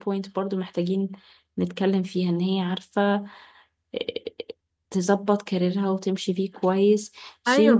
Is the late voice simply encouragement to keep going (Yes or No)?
No